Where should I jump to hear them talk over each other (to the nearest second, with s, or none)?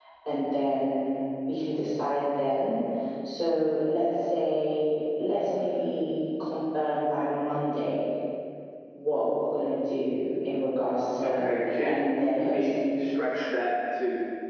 11 s